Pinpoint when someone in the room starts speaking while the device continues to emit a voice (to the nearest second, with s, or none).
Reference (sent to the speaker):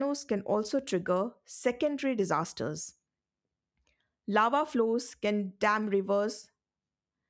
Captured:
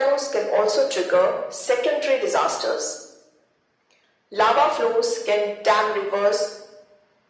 none